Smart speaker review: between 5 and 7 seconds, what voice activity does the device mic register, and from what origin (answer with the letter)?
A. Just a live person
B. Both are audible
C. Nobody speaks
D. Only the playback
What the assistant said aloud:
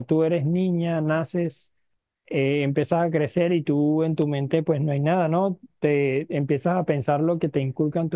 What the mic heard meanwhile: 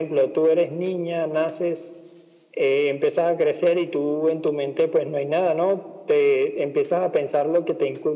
D